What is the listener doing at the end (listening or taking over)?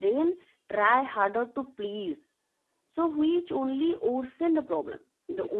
listening